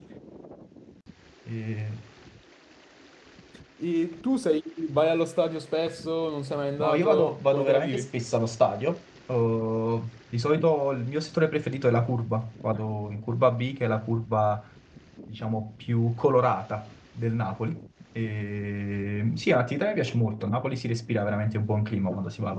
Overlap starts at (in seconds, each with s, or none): 6.8 s